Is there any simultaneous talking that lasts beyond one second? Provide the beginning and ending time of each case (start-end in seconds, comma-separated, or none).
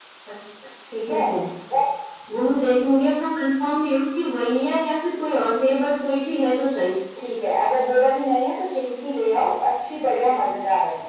none